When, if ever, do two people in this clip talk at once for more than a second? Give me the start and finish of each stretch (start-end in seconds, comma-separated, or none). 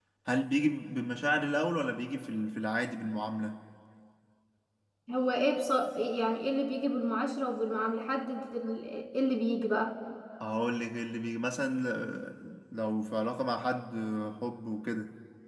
none